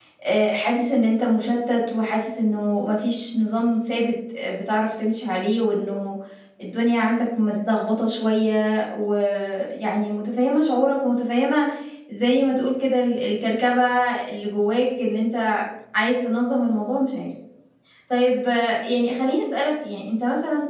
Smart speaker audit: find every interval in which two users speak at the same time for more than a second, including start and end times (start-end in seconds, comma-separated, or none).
none